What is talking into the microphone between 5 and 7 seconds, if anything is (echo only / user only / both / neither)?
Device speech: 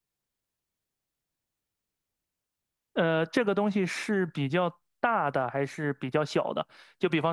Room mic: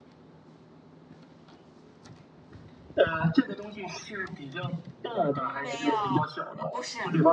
both